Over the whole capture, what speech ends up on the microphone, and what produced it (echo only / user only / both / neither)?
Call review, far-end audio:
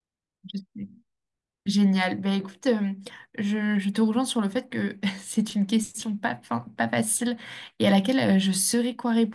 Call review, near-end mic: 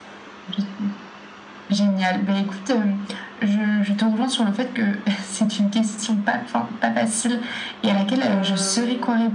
both